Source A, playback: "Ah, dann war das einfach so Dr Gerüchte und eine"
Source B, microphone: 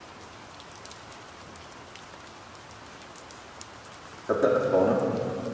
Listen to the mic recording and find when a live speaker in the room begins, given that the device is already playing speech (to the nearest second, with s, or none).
4 s